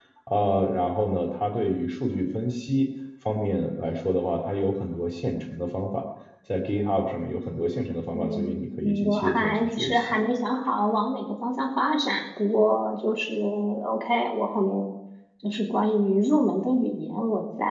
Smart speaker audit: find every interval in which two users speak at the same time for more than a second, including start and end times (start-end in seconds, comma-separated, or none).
8.1-10.2